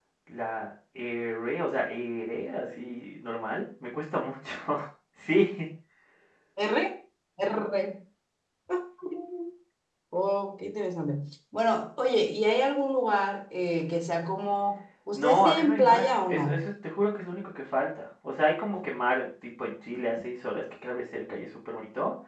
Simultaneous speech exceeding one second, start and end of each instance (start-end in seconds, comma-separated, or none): 15.1-16.7